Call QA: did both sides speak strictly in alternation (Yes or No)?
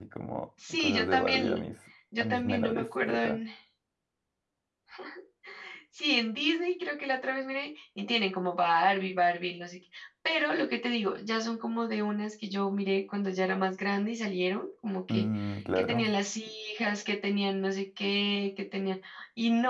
No